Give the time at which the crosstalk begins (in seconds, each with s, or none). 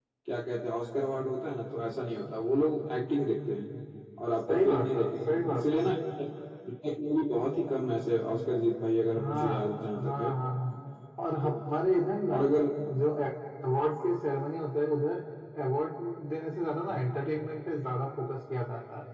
4.5 s